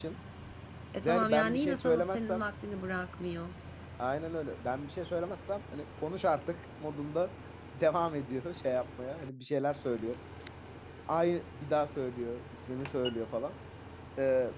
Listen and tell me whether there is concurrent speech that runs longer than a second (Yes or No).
Yes